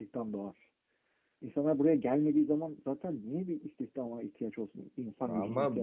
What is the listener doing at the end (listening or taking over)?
taking over